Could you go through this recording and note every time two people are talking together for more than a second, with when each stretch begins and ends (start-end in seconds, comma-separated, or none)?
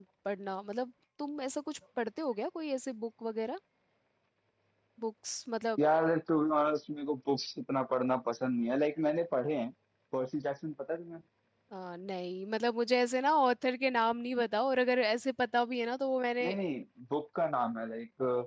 none